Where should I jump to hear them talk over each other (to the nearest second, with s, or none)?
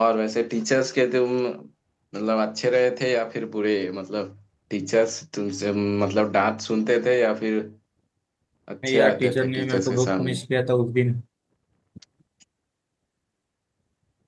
9 s